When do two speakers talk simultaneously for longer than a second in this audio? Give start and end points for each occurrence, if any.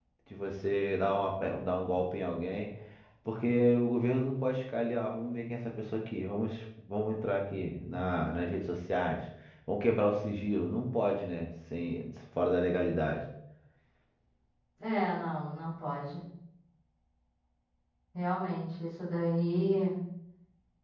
none

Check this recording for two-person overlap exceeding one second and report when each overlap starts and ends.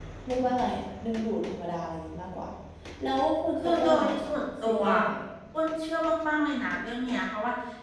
3.6-4.8

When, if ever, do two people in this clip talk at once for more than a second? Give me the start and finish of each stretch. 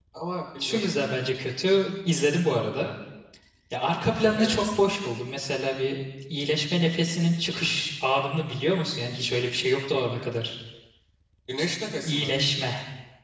none

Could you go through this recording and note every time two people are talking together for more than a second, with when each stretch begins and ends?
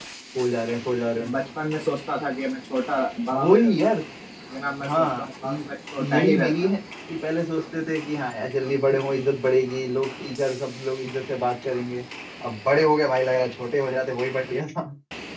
4.9-6.7

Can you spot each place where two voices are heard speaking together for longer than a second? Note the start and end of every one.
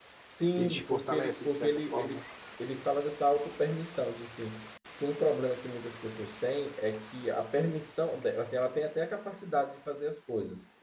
0.6-2.2

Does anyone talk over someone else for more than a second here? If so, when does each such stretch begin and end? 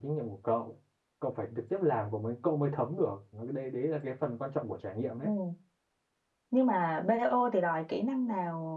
none

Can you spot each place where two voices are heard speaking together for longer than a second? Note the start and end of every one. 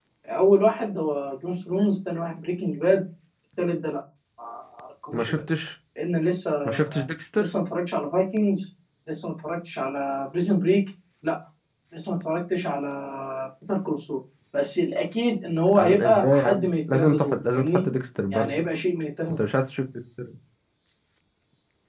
15.8-17.8

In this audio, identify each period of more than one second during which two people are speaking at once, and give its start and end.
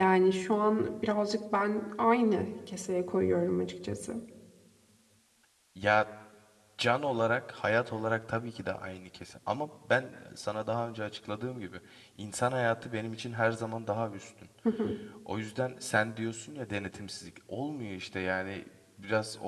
none

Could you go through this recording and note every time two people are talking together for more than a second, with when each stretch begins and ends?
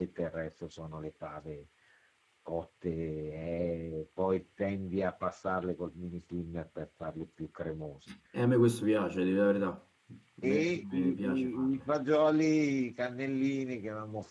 10.4-11.8

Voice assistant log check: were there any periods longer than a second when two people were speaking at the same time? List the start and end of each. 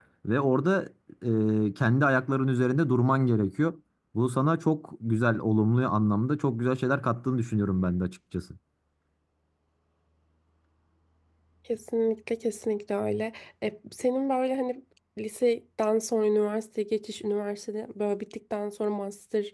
none

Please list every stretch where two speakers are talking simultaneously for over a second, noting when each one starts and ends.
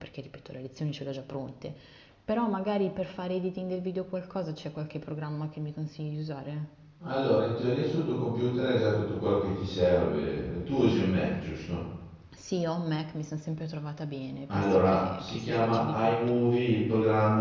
14.5-16.2

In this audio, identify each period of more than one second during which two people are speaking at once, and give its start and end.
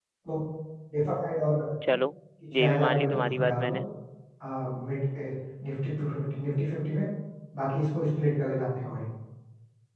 2.6-3.8

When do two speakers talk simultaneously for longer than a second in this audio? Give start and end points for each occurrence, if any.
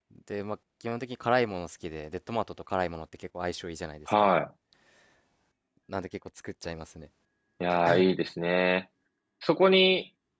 none

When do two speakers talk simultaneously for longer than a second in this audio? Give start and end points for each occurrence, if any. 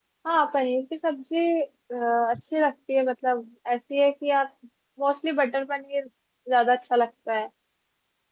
none

